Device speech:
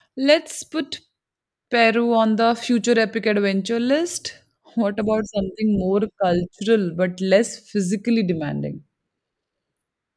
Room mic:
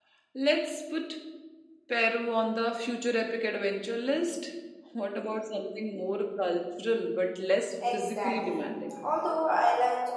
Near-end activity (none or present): present